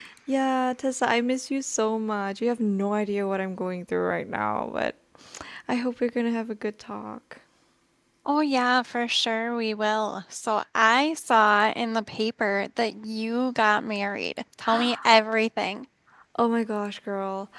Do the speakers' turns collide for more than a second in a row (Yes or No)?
No